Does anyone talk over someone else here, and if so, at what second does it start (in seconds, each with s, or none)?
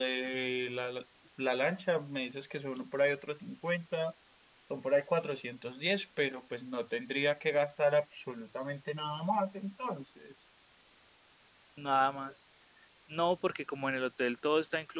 none